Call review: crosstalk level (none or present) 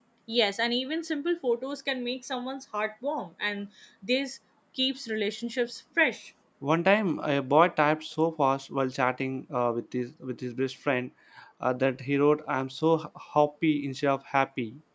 none